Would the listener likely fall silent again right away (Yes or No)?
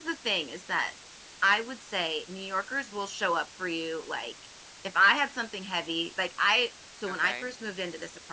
Yes